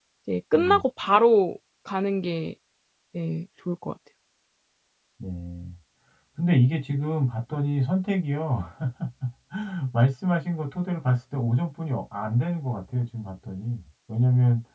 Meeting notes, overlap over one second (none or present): none